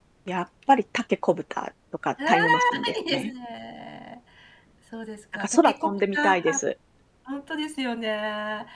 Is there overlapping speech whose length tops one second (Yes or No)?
Yes